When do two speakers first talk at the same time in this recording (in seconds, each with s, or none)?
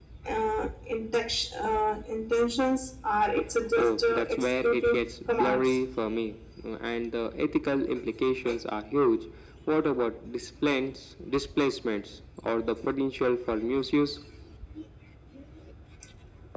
3.8 s